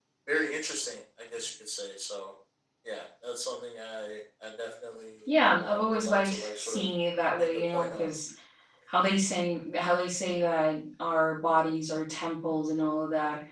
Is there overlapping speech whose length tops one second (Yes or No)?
Yes